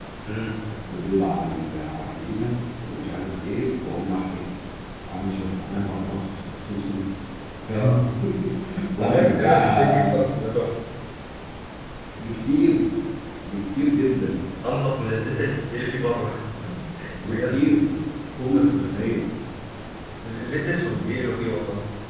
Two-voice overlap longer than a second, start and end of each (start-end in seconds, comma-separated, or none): 9.0-10.2